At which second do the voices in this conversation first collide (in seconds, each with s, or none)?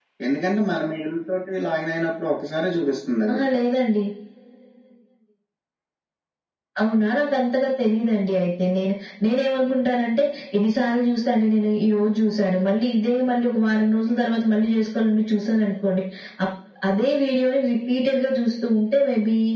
none